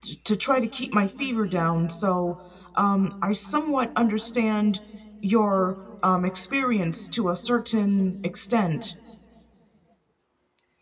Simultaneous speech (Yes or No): No